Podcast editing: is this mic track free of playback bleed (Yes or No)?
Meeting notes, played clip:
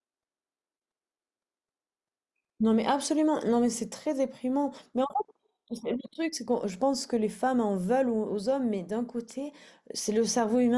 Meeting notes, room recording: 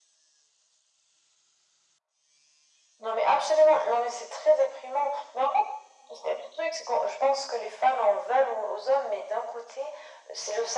No